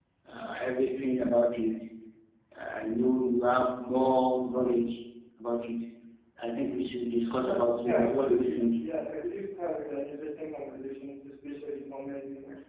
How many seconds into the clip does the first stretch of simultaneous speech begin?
7.3 s

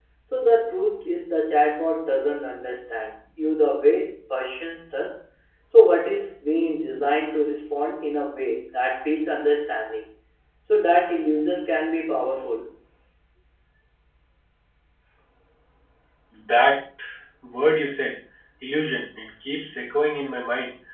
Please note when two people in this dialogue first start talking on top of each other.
none

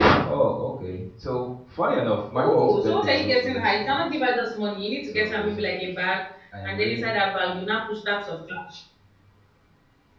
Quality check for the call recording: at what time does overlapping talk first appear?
2.3 s

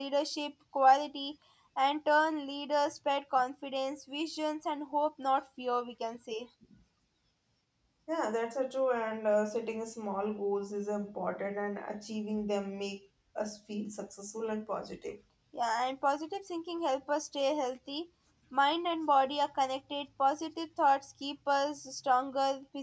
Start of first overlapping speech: none

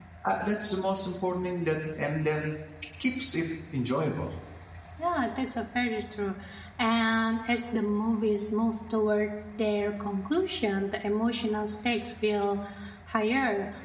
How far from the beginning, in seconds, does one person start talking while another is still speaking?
none

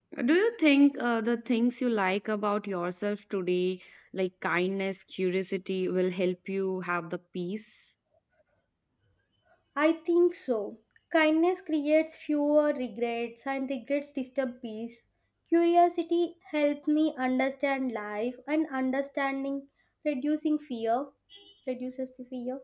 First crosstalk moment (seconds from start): none

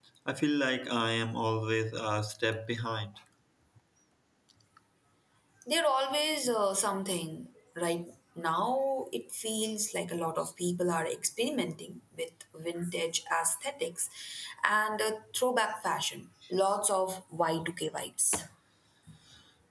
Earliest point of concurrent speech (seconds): none

